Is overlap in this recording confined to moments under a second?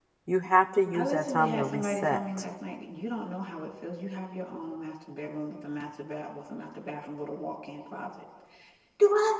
No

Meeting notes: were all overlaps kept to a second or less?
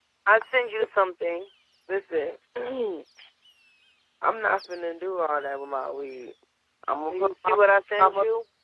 Yes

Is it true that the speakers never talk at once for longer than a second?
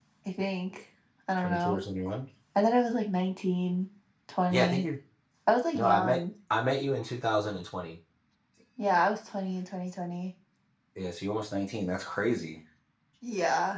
Yes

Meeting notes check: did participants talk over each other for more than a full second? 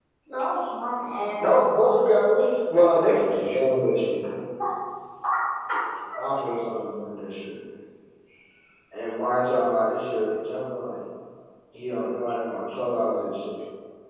No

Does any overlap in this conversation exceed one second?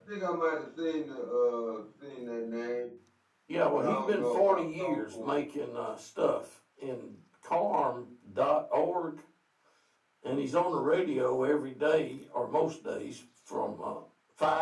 Yes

